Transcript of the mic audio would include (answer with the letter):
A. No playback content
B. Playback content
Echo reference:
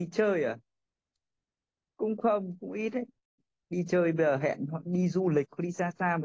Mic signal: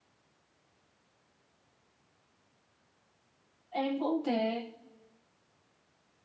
A